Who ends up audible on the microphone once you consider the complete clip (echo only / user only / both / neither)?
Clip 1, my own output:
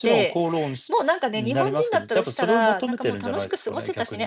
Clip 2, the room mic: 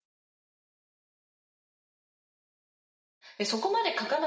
user only